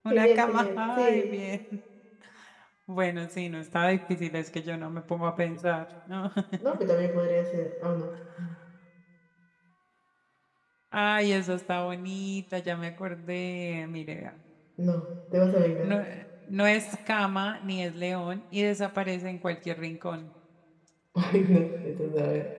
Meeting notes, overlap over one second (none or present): present